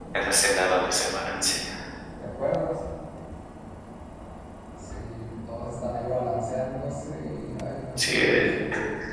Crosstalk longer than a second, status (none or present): none